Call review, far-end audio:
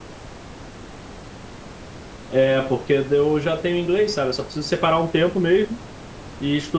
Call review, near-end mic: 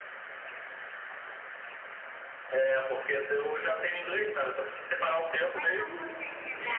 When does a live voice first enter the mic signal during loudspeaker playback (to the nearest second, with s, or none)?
6 s